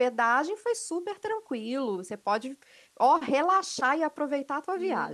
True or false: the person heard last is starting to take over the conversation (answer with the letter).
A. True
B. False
A